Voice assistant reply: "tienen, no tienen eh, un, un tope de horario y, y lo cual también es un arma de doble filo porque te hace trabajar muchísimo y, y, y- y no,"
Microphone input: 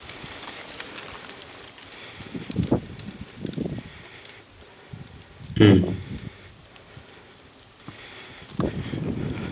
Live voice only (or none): Mm.